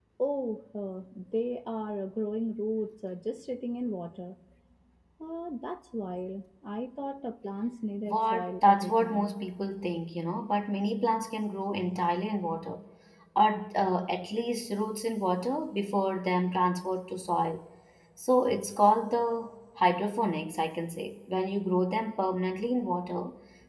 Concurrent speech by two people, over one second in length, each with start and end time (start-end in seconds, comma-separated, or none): 8.1-9.3